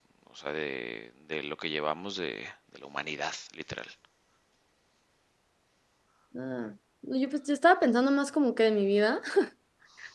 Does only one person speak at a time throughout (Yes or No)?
Yes